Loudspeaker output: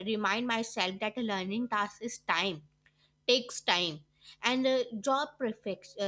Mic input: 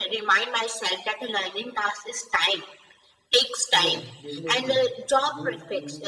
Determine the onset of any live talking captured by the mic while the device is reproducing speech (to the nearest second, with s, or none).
4 s